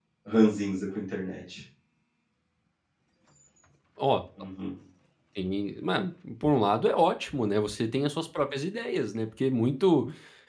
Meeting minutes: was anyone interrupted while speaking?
No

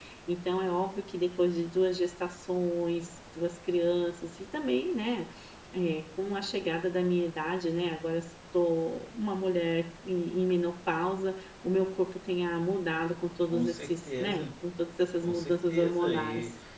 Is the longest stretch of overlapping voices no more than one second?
No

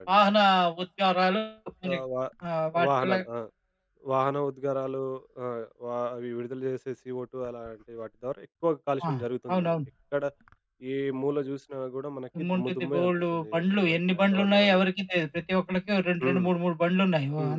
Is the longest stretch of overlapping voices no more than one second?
No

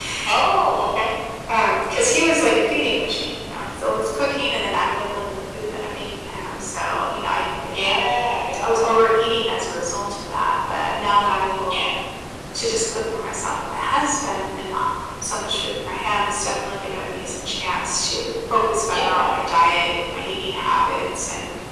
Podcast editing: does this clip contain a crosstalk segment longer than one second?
No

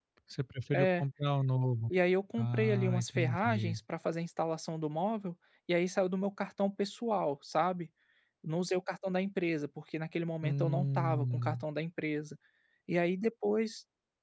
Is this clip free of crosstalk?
No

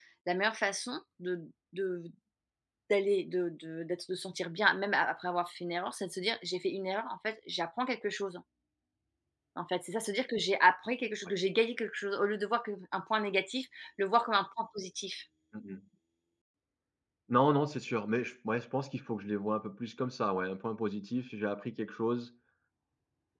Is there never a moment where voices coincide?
Yes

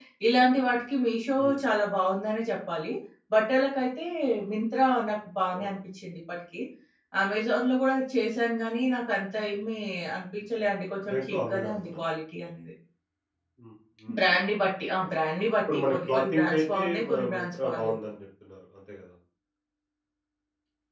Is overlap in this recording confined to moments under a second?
No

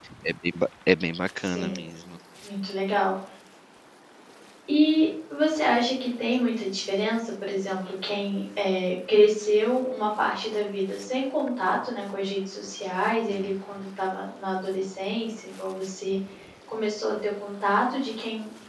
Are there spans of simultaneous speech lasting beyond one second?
No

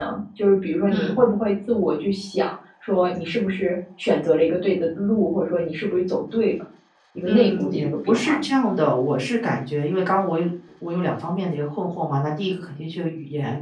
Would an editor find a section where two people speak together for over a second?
Yes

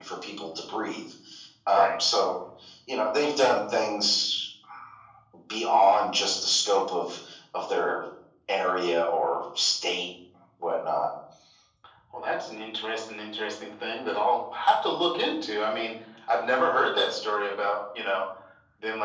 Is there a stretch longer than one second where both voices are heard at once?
No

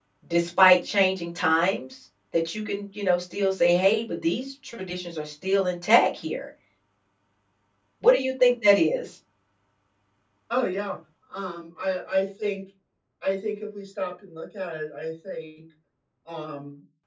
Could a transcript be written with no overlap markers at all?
Yes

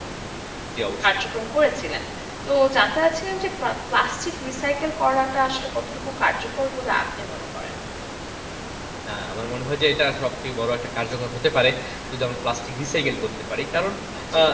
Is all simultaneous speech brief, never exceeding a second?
Yes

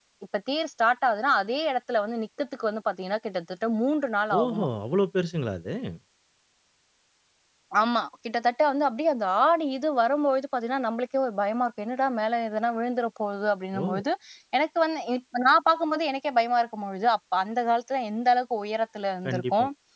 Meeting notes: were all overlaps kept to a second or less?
Yes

